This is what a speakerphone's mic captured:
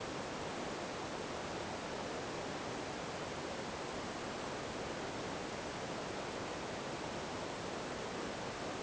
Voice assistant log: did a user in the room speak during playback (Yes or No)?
No